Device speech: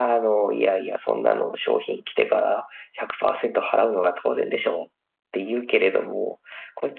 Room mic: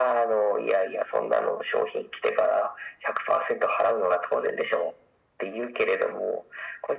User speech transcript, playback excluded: none

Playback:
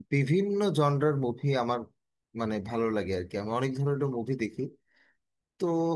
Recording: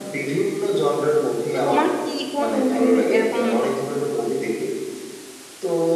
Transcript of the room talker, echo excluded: তো তোমার কি কোন মুভির এরকম

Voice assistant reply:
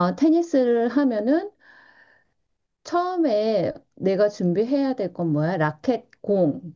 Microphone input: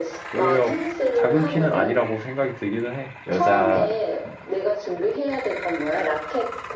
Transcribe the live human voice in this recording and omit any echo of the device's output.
오히려 작은 키는 아니라고 생각이 들기는 해. 여자,

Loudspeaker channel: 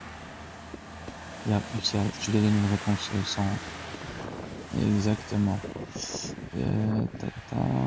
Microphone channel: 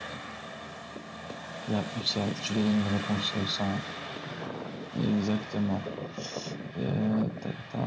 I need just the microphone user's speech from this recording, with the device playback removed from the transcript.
none

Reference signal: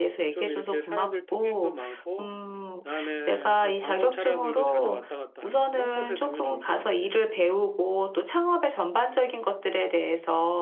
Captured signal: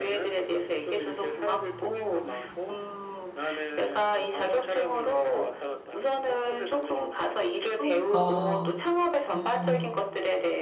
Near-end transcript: 그러니까, 음,

